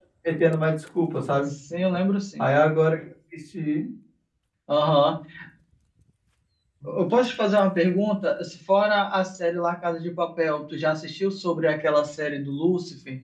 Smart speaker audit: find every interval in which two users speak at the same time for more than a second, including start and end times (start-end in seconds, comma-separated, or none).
none